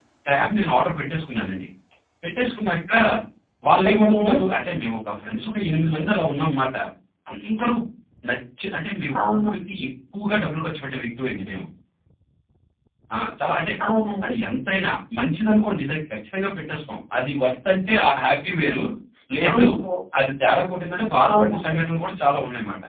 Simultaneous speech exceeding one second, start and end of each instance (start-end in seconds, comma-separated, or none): none